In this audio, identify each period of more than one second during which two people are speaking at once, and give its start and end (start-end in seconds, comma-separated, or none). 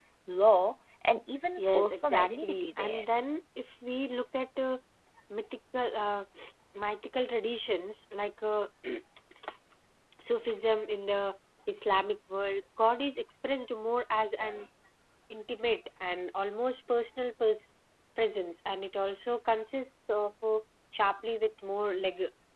1.6-3.0